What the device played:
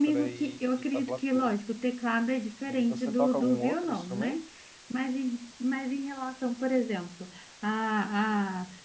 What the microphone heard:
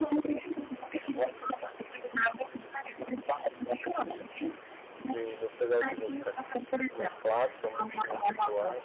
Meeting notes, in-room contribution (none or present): present